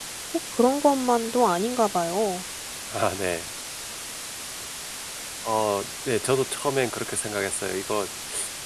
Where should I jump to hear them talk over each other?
none

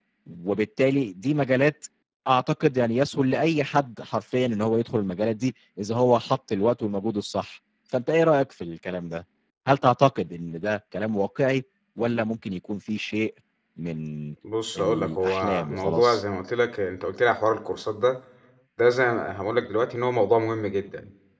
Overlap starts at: 14.8 s

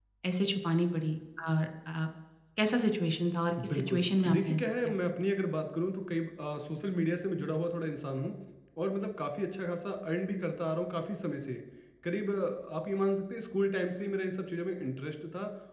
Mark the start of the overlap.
3.6 s

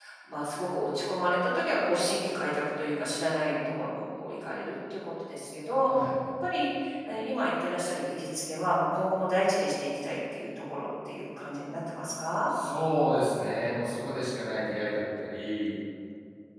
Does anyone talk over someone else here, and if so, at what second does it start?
none

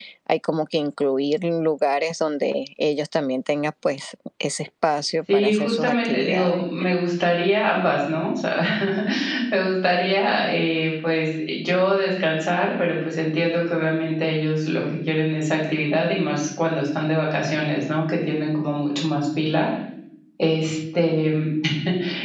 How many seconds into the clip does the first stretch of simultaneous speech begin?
5.3 s

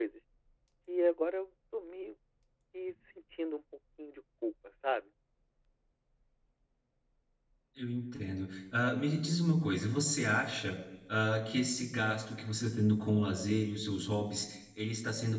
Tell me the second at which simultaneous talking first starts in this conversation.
none

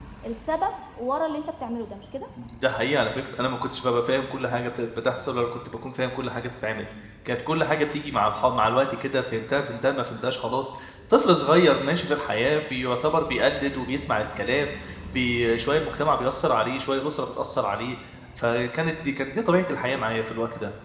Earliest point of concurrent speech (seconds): none

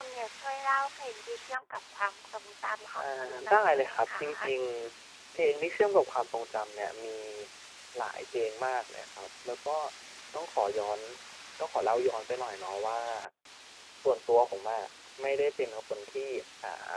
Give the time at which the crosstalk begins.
2.9 s

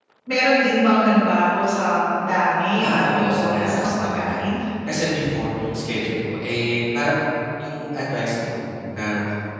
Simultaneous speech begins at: 2.8 s

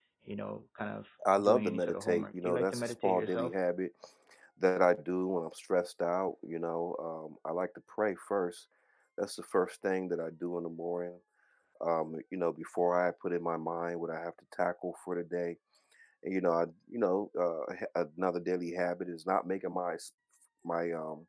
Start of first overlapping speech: 1.2 s

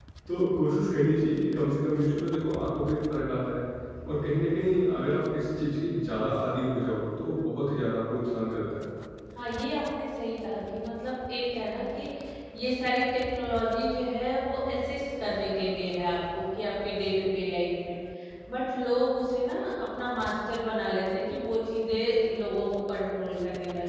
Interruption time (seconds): none

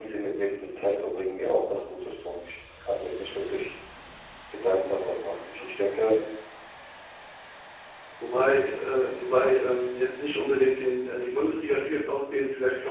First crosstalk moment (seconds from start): none

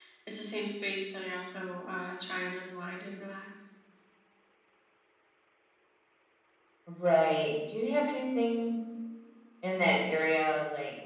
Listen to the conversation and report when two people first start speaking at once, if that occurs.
none

